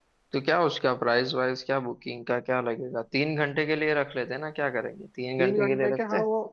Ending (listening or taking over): taking over